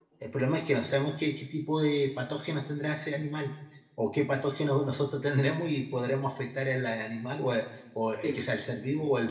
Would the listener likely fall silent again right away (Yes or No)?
Yes